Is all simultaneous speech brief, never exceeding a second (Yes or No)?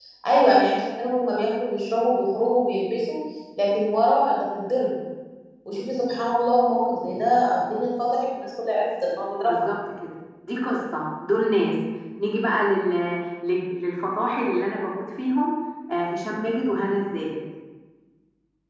Yes